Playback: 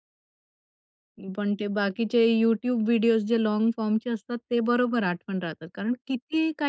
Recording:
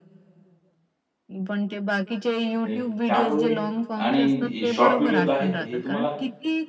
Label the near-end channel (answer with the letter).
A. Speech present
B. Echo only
A